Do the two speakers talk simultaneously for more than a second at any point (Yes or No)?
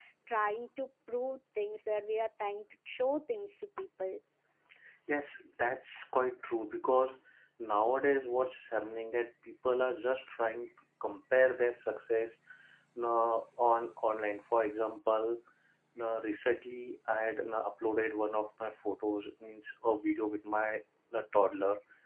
No